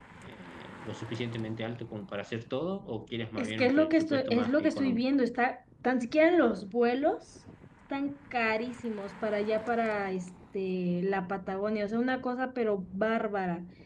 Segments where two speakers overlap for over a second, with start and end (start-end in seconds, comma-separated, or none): 3.4-5.0